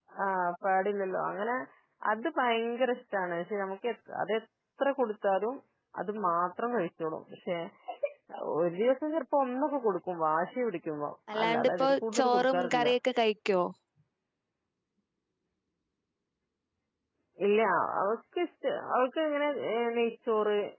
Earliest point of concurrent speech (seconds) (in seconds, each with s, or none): 11.3 s